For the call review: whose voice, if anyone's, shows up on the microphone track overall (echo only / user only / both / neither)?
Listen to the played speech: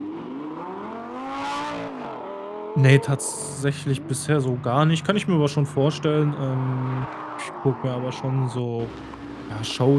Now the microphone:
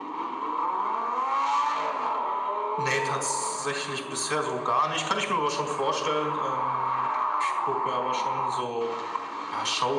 echo only